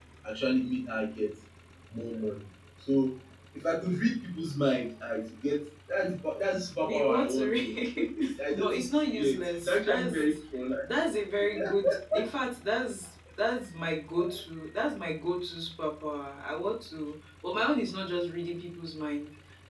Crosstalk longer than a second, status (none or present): present